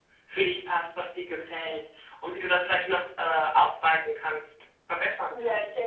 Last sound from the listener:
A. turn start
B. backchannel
A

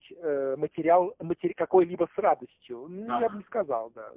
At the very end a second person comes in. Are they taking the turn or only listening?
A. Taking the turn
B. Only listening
B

